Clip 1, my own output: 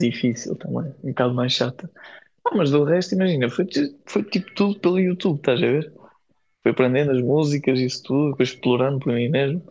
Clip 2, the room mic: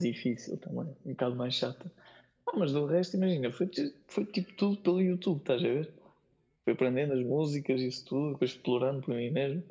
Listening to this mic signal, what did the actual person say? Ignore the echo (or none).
none